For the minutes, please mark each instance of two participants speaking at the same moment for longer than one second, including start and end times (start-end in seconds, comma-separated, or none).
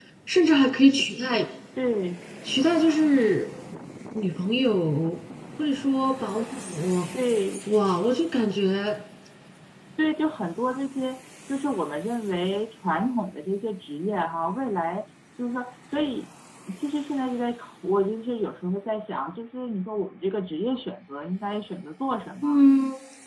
none